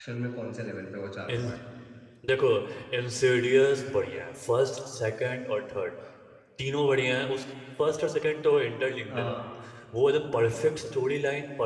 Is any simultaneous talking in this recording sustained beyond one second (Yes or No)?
No